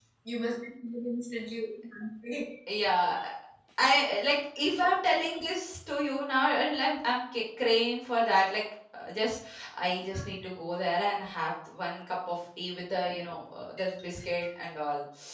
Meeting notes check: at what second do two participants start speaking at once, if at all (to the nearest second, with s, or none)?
none